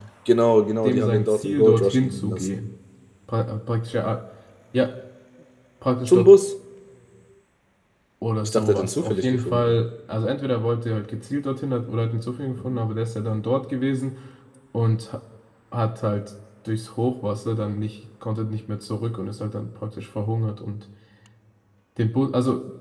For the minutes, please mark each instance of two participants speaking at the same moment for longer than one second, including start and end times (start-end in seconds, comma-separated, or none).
0.8-2.5, 8.4-9.8